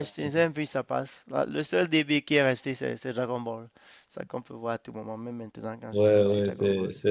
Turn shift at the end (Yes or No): Yes